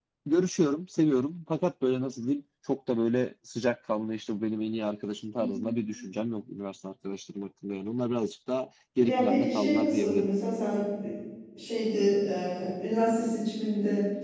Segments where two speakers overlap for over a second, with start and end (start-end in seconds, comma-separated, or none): 9.0-10.3